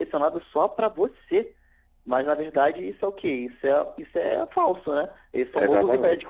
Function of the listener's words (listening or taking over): taking over